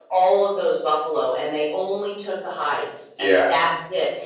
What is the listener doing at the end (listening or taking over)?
listening